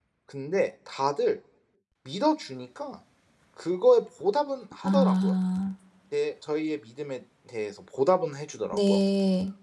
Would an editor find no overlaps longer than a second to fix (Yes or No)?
Yes